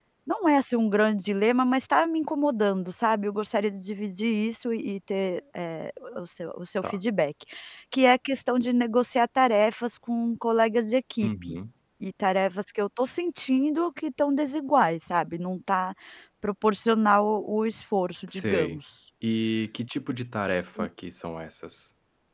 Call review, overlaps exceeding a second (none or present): none